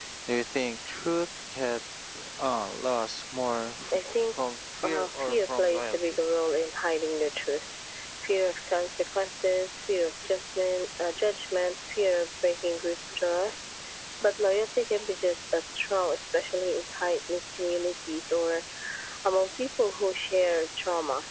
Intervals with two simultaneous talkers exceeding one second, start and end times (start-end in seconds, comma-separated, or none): 4.8-6.2